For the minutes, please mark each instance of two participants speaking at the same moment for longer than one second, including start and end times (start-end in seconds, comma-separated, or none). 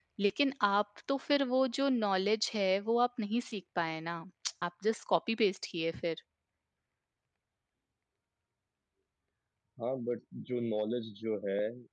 none